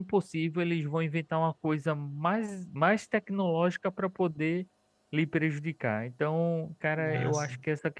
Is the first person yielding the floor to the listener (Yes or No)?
No